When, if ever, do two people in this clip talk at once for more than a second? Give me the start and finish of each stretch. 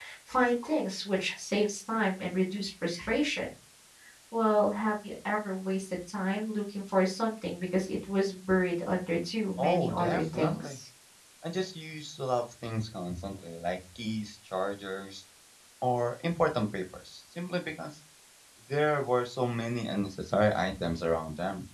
9.6-10.8

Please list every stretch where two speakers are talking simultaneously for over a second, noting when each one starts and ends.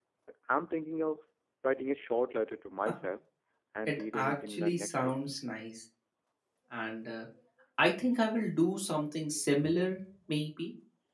3.9-5.2

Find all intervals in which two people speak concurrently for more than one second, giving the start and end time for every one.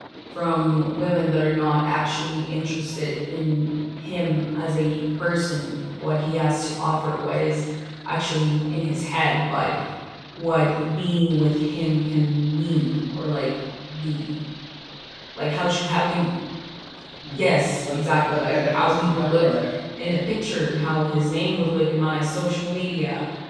17.3-19.5

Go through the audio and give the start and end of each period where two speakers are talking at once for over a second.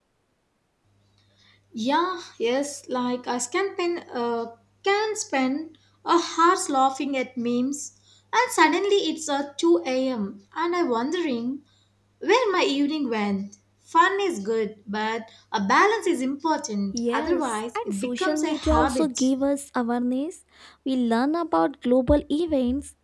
16.9-19.3

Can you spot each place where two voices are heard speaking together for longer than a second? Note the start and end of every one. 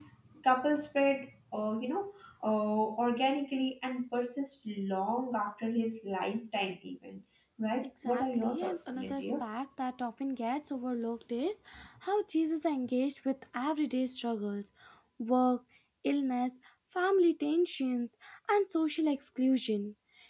8.0-9.4

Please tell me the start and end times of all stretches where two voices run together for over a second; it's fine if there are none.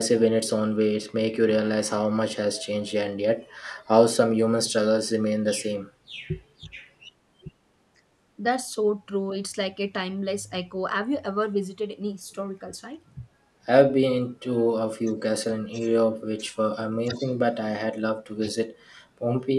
none

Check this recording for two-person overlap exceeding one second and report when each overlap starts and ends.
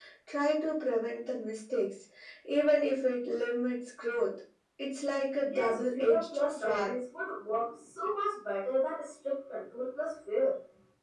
5.5-7.0

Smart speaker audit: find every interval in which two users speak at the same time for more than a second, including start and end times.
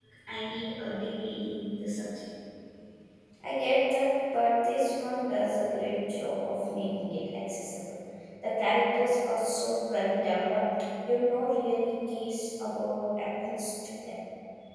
none

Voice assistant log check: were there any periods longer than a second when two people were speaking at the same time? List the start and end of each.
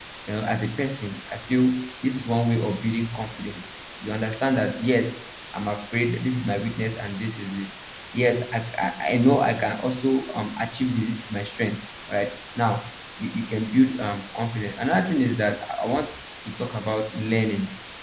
none

